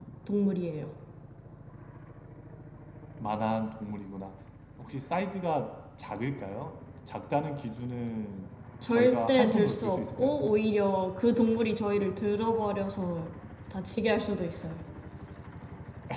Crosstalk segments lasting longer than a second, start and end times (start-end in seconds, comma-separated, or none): 8.8-10.4